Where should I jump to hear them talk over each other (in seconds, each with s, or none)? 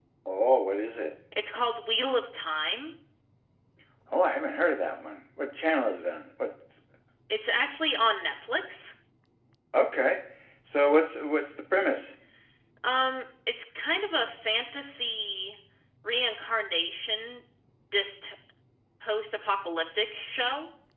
none